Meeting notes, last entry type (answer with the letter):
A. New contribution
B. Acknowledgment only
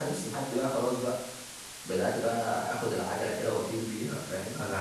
A